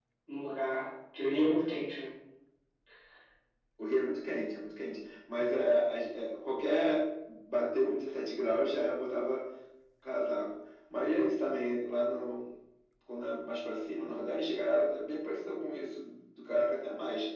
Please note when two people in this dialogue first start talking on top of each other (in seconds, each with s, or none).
none